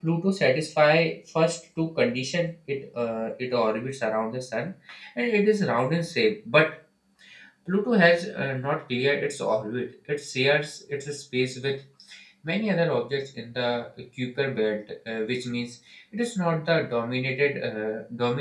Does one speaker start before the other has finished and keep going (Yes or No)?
No